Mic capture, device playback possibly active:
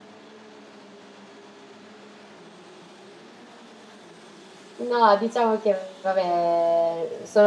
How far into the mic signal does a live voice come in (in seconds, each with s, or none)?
4.8 s